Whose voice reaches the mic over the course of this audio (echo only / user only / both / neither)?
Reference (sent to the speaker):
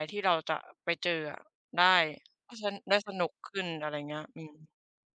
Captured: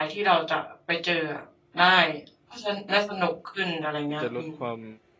both